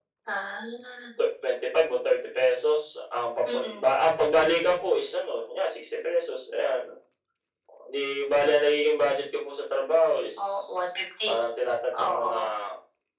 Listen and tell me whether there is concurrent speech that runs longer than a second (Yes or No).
No